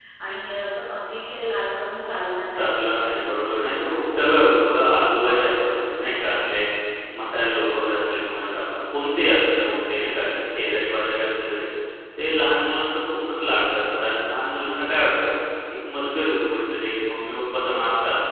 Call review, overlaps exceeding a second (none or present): none